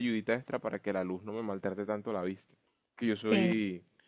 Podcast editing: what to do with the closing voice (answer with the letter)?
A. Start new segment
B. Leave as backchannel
B